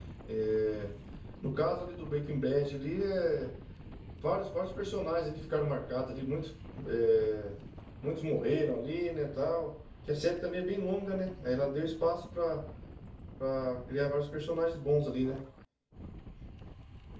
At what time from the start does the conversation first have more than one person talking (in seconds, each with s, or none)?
none